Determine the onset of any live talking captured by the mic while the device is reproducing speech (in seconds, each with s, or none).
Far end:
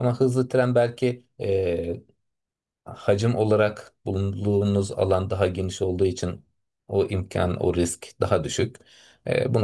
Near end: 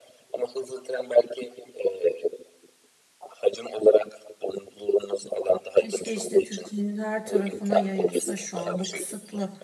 5.7 s